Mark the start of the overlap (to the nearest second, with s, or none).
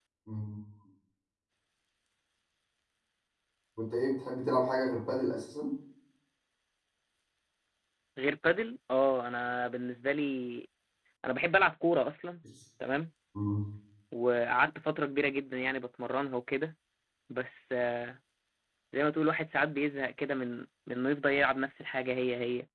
none